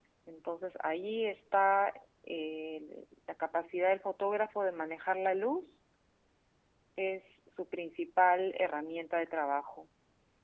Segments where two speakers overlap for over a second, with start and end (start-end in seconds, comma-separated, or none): none